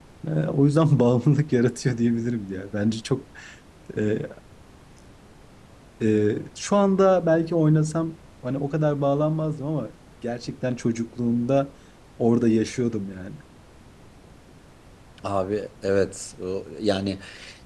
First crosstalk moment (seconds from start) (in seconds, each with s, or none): none